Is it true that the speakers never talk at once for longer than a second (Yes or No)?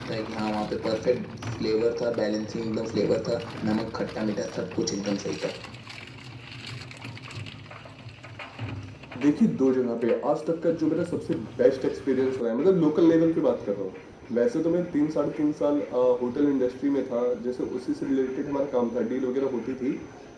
Yes